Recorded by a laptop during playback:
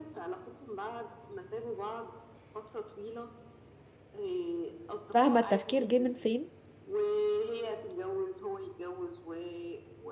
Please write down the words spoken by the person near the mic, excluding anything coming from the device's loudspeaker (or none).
فاهمة التفكير جه من فين؟